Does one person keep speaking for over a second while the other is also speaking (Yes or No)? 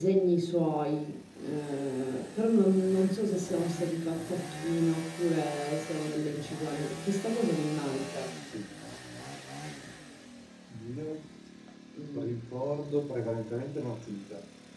No